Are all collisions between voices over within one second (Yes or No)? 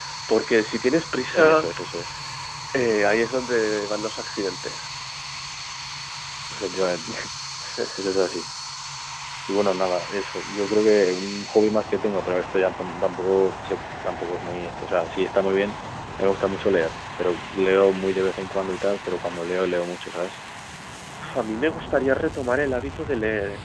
Yes